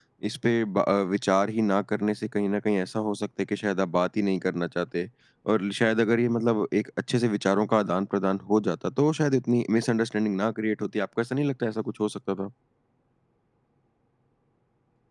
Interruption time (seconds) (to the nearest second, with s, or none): none